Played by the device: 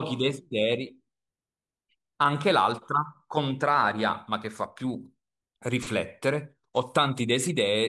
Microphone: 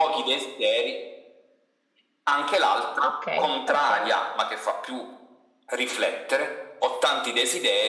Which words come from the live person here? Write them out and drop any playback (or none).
ok, ok.